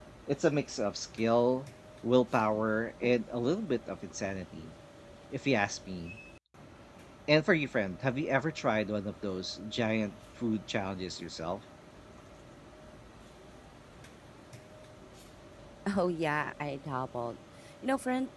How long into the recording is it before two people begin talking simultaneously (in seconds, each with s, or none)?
none